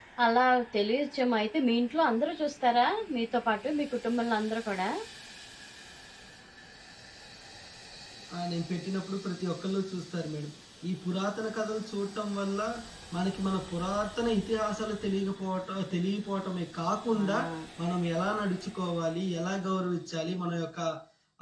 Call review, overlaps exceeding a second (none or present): none